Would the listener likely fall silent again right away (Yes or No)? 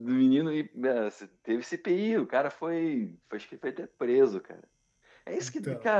Yes